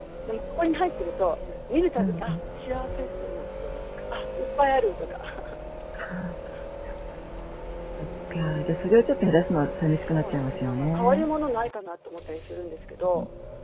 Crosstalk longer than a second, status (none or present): present